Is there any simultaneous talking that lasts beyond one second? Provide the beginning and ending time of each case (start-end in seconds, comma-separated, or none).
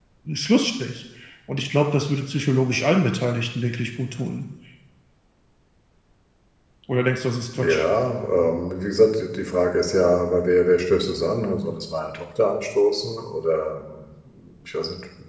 none